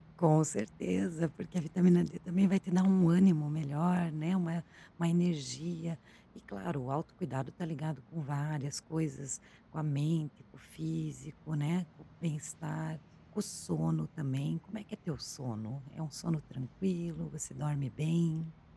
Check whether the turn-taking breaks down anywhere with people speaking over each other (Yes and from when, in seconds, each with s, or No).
No